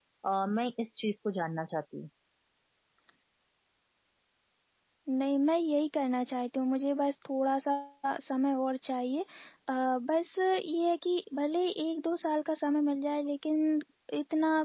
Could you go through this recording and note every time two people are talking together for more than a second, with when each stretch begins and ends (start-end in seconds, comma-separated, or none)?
none